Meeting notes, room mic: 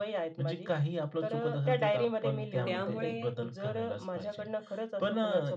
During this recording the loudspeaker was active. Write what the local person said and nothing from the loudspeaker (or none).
त्यामुळे